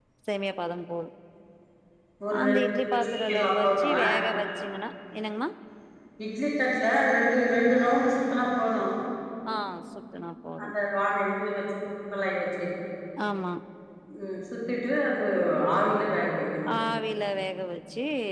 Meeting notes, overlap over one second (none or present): present